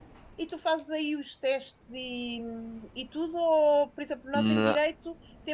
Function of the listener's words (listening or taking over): listening